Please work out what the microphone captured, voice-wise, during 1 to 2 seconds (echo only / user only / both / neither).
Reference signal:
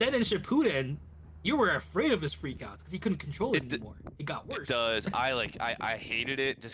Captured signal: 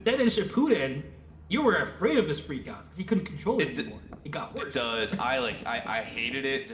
echo only